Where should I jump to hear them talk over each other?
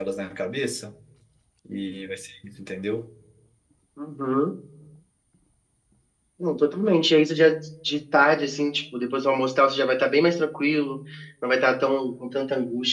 none

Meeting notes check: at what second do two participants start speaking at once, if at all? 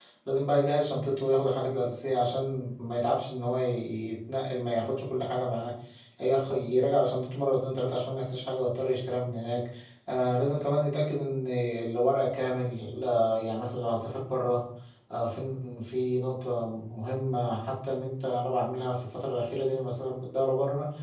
none

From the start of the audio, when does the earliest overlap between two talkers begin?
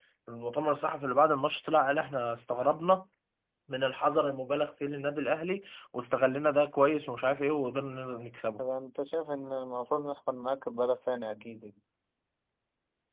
none

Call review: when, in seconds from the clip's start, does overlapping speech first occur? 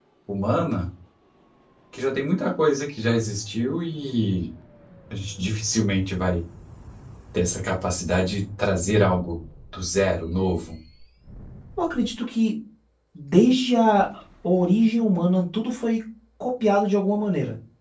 none

